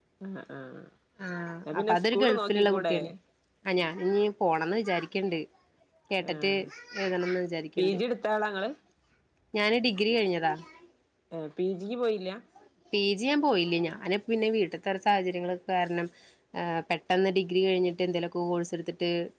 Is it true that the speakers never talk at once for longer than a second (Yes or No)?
No